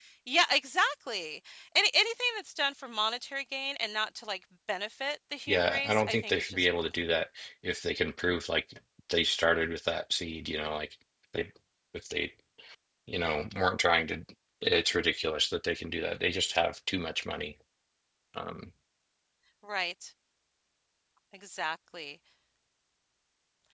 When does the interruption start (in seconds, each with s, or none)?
5.5 s